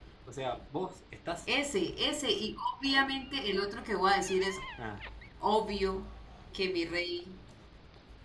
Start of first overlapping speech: none

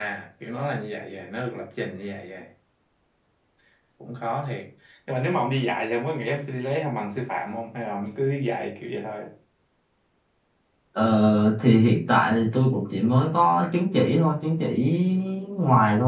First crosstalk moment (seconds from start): none

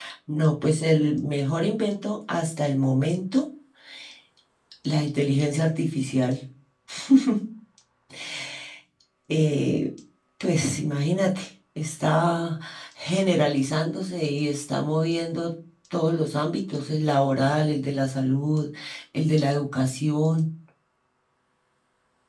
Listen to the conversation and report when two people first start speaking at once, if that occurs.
none

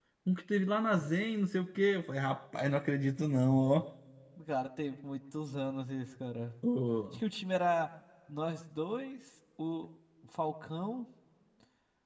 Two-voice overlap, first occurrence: none

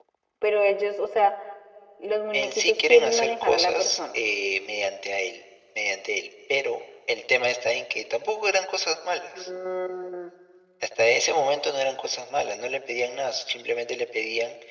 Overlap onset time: 2.3 s

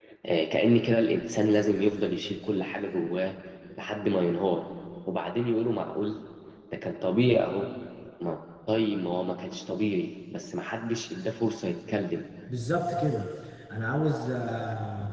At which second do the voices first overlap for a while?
none

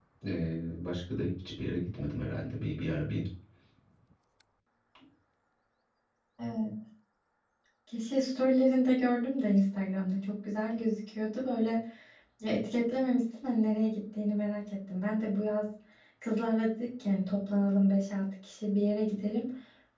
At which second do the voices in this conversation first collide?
none

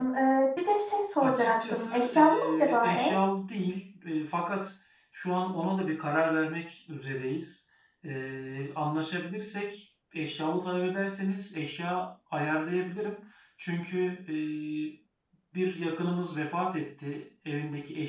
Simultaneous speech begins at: 1.2 s

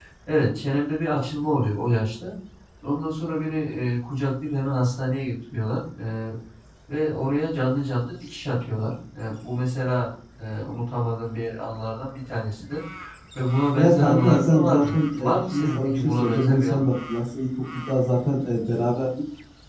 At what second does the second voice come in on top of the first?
13.8 s

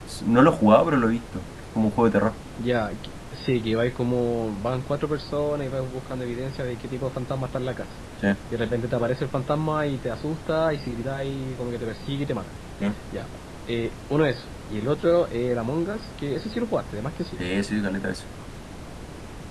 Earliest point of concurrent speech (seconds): none

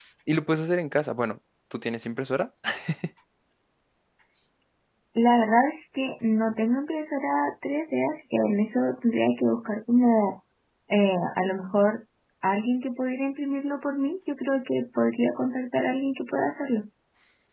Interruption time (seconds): none

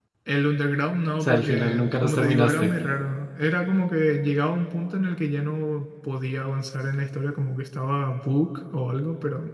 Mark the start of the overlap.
1.2 s

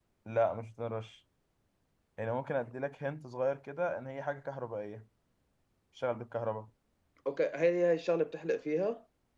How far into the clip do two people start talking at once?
none

